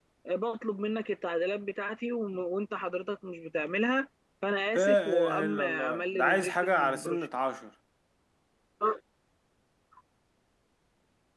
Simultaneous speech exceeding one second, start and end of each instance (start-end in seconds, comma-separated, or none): 4.8-7.3